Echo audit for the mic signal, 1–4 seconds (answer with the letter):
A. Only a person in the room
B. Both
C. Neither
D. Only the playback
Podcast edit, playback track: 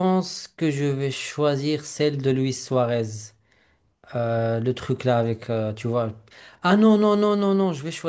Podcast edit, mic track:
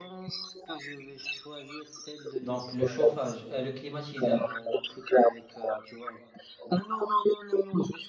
B